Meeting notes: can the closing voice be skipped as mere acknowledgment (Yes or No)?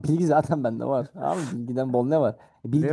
Yes